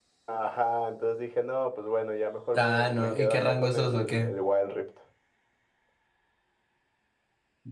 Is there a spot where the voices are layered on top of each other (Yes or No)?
Yes